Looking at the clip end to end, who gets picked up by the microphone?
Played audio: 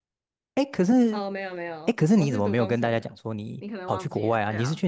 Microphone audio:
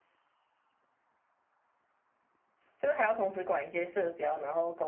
user only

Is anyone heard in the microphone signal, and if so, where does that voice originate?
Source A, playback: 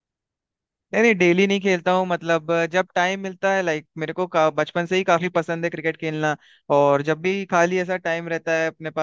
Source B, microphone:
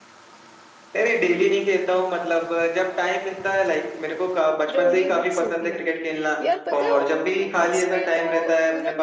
both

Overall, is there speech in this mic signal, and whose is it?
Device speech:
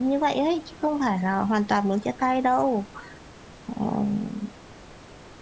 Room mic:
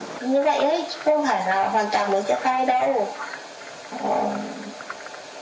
echo only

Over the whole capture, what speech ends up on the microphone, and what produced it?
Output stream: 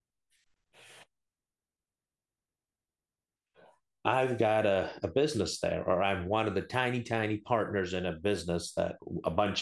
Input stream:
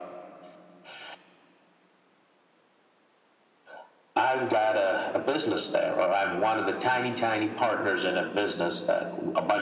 echo only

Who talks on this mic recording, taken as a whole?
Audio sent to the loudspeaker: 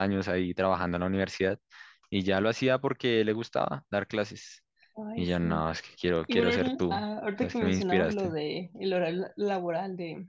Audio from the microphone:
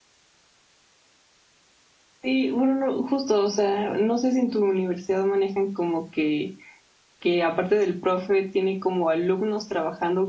user only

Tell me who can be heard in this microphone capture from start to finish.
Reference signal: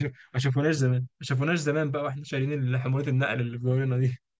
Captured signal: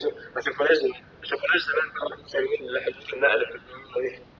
echo only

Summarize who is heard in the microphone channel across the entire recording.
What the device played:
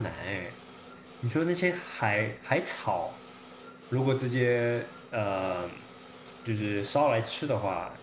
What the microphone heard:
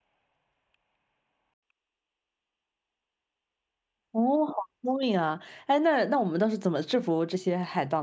user only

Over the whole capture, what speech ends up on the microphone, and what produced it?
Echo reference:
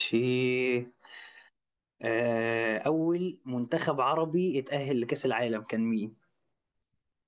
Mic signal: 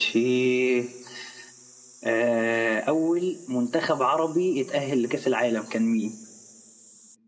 echo only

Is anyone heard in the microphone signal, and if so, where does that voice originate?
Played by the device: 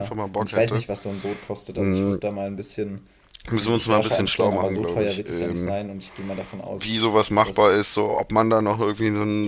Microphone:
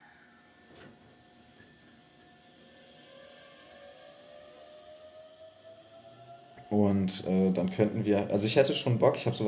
user only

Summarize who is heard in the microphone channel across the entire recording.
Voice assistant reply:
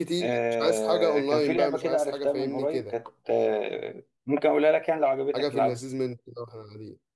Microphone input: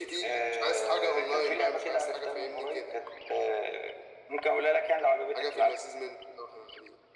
echo only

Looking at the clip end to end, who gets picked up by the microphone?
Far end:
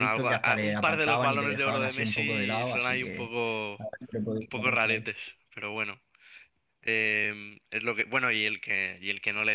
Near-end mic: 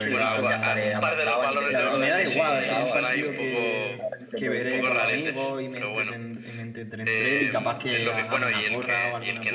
both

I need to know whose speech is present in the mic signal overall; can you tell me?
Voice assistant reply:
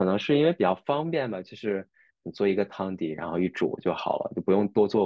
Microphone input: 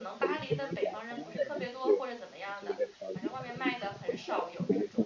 both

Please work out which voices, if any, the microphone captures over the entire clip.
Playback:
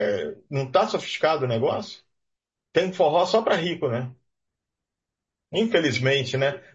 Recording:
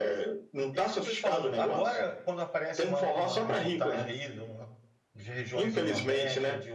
both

